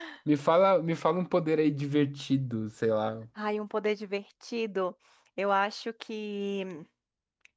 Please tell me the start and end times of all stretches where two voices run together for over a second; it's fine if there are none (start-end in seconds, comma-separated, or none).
none